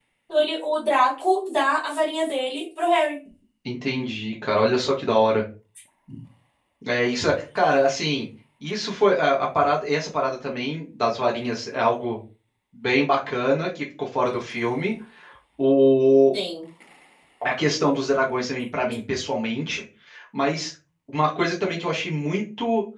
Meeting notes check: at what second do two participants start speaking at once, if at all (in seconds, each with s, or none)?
none